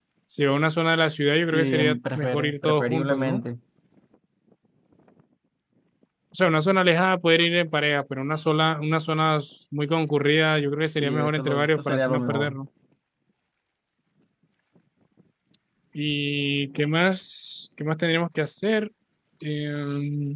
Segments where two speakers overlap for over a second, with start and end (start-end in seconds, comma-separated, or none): 1.5-3.4, 11.0-12.6